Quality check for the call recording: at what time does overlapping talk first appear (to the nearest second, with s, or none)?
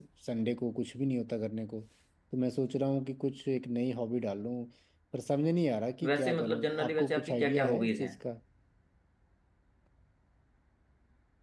6 s